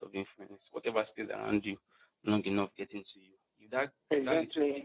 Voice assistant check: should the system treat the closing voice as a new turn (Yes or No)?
No